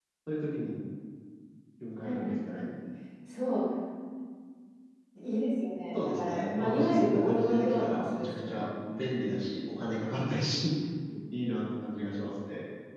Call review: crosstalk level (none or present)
present